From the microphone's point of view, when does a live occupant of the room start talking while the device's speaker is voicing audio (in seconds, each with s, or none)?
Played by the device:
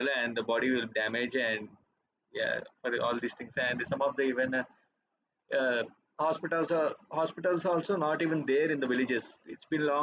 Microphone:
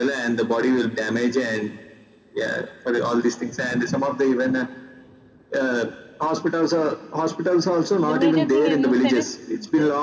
8.1 s